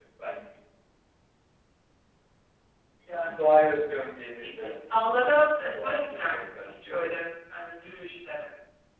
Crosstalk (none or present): present